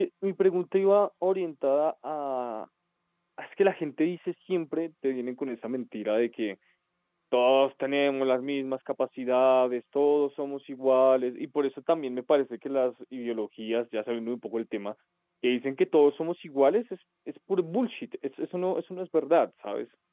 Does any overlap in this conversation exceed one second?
No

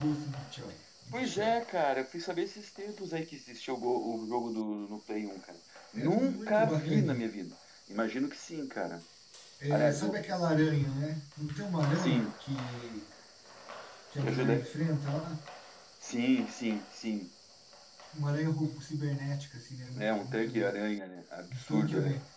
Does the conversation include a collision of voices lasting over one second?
Yes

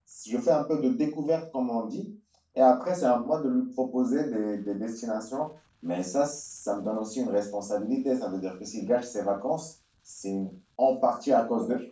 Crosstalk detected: No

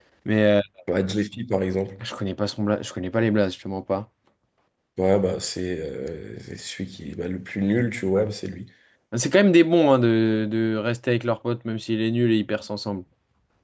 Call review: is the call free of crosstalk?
Yes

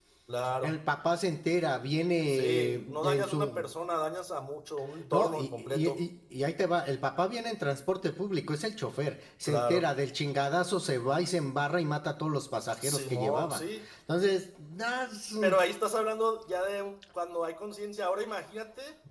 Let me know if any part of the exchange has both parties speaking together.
Yes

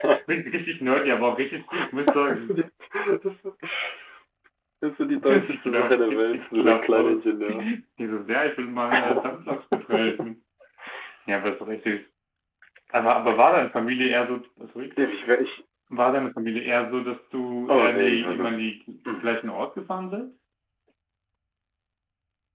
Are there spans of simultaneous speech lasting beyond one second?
Yes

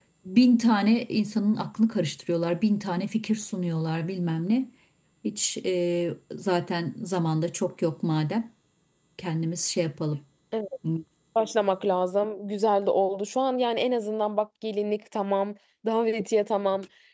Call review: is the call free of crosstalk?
Yes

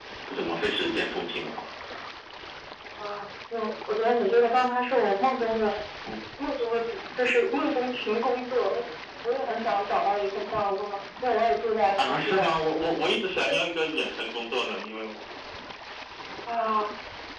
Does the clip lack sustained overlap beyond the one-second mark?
Yes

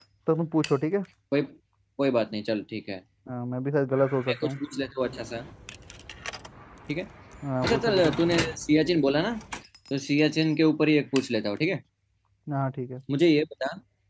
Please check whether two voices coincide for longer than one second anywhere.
No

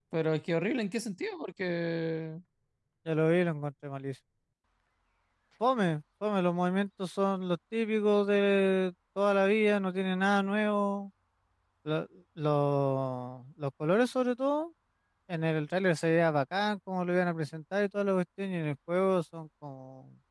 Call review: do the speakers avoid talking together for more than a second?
Yes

